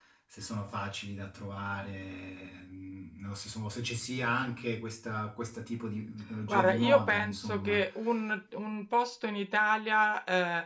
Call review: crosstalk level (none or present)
present